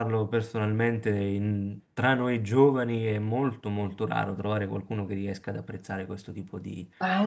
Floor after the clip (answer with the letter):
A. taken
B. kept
A